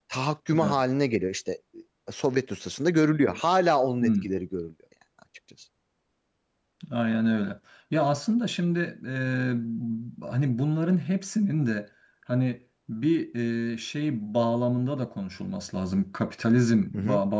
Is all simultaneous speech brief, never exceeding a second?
Yes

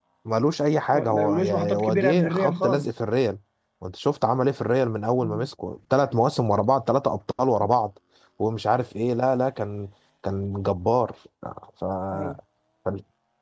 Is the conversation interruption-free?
No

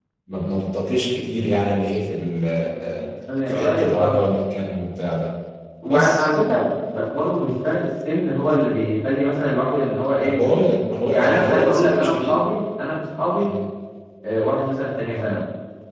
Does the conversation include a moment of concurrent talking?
Yes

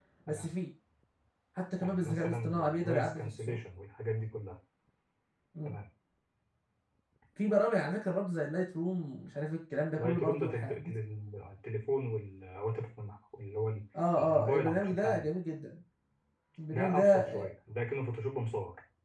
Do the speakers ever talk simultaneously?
Yes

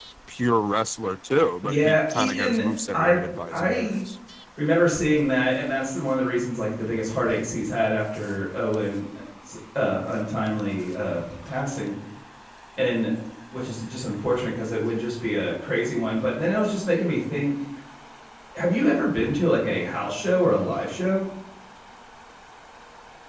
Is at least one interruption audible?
Yes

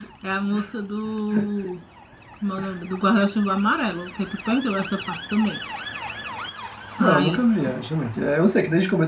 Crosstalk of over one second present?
No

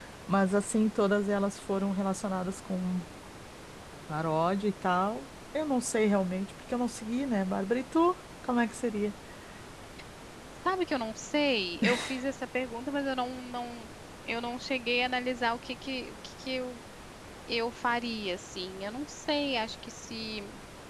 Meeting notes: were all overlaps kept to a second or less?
Yes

